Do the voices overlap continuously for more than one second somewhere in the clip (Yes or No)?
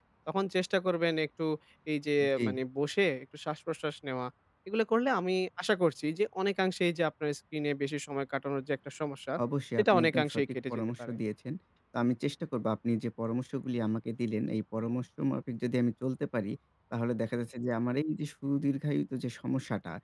Yes